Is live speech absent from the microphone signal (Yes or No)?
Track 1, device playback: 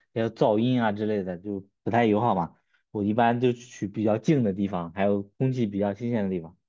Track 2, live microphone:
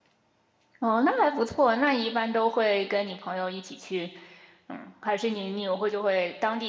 No